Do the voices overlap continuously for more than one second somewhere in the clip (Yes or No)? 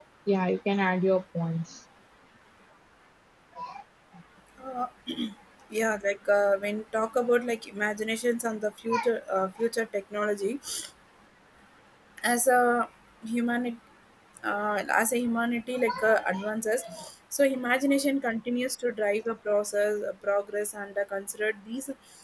No